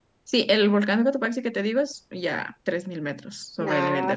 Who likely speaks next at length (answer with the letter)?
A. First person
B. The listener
B